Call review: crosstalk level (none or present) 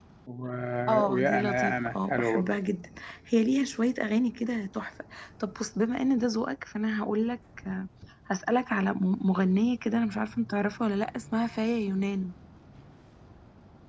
present